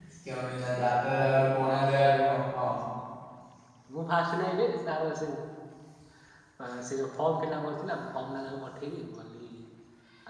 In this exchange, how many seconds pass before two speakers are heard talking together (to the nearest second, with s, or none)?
none